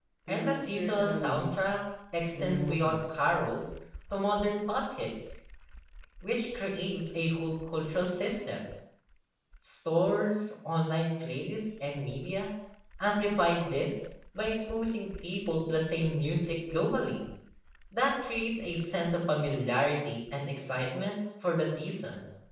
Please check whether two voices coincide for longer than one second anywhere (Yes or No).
Yes